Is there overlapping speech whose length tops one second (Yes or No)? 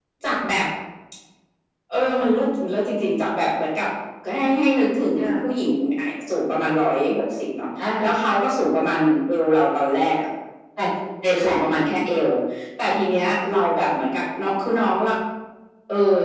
No